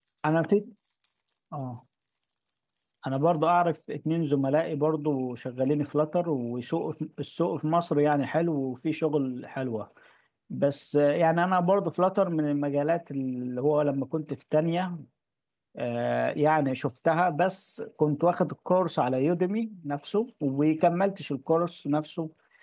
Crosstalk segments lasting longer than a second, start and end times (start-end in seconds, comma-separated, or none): none